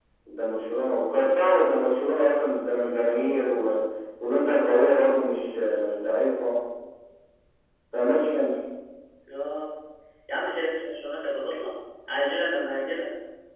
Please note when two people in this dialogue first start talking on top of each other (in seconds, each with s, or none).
none